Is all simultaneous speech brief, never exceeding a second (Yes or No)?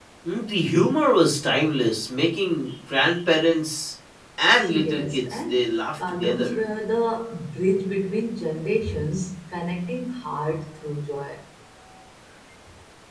No